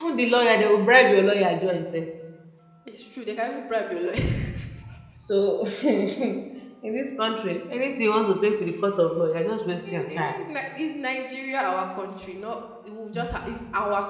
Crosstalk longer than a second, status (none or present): none